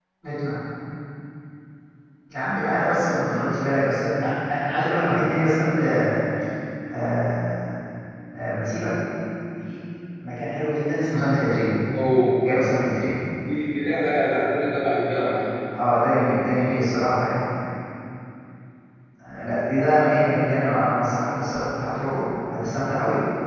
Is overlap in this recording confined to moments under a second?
Yes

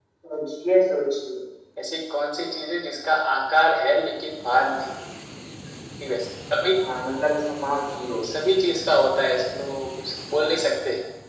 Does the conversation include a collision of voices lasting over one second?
No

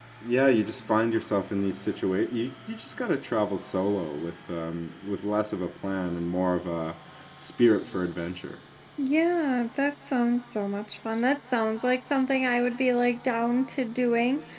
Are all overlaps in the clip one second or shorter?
Yes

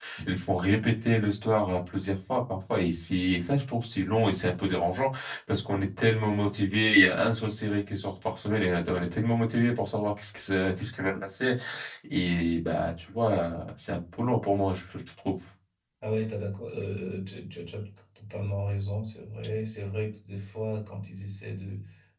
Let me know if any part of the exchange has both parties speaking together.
No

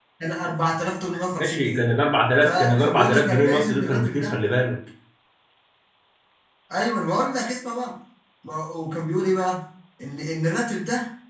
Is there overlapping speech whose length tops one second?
Yes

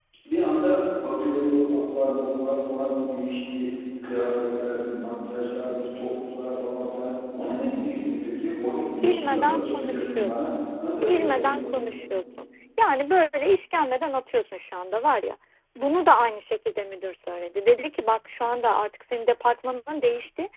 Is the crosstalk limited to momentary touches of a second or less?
No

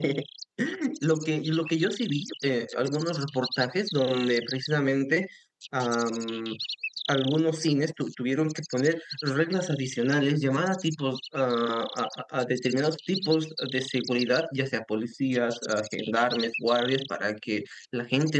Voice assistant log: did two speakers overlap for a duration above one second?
No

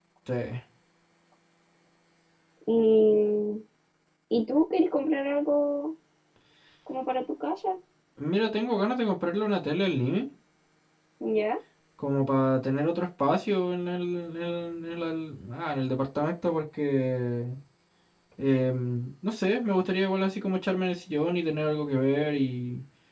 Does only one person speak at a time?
Yes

